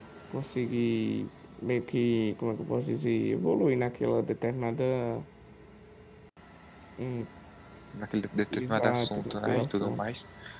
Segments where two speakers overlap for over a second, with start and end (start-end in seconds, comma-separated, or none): 8.5-10.1